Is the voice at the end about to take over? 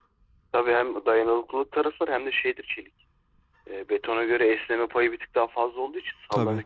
No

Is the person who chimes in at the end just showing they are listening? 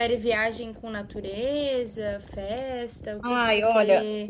No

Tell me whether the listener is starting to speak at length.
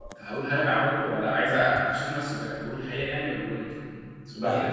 Yes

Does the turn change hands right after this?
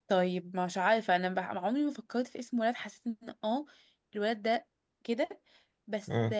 No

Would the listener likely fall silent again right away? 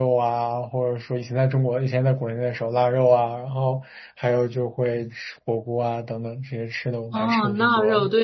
No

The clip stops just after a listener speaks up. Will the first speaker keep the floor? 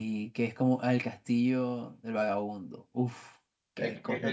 No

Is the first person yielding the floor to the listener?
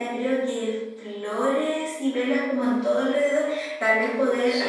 No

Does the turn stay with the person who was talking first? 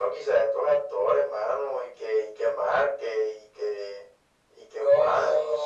No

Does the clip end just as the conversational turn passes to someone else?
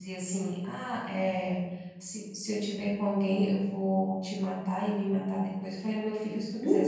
No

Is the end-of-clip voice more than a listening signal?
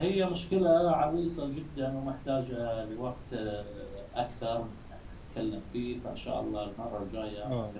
Yes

